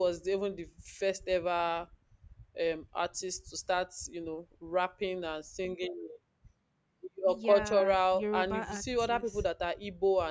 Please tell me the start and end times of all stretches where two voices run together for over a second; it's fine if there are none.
7.3-9.4

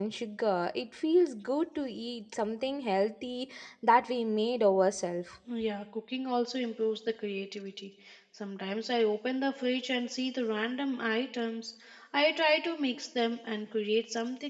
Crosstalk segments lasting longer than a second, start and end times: none

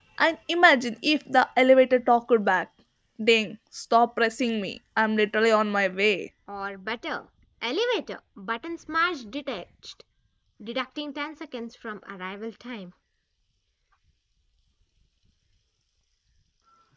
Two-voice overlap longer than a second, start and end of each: none

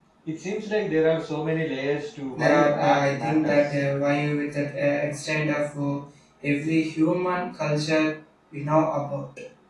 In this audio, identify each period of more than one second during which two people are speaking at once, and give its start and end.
2.3-3.6

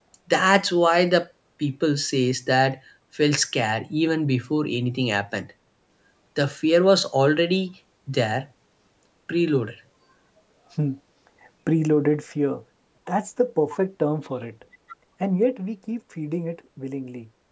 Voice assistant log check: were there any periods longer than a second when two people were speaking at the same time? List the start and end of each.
none

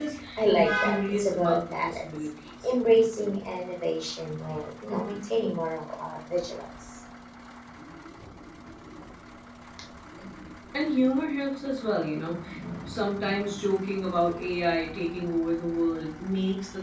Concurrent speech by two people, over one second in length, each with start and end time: 0.5-2.0

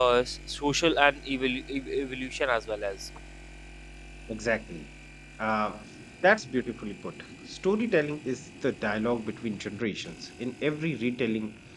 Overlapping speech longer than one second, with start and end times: none

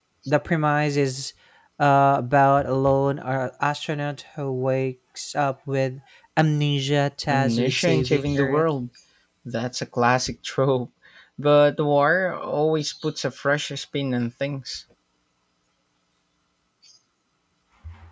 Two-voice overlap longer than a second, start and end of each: 7.3-8.6

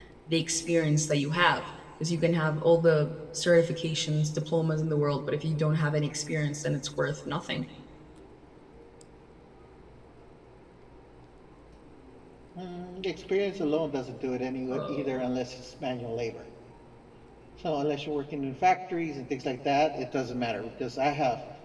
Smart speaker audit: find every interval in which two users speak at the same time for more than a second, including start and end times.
none

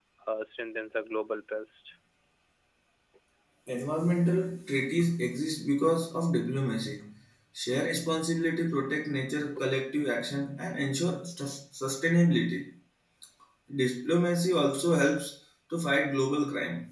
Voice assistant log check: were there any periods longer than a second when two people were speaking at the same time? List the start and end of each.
none

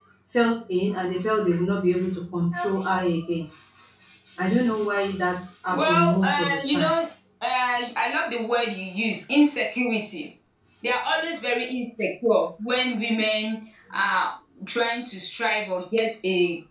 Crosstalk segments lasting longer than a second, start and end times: 5.7-6.9

